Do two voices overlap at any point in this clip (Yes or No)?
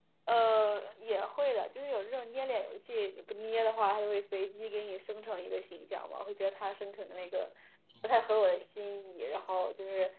No